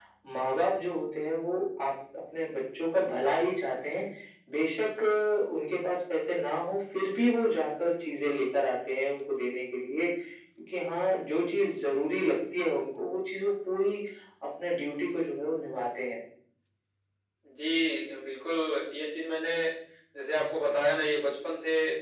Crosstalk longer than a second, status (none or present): none